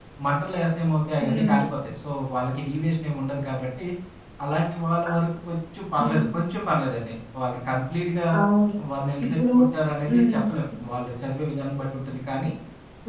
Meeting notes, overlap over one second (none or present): none